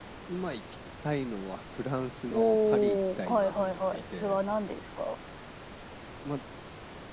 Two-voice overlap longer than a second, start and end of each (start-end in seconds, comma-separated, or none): 2.3-4.4